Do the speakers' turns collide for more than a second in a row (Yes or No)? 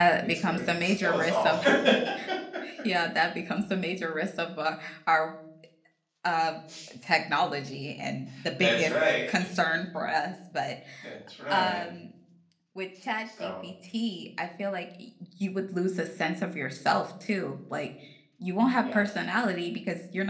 Yes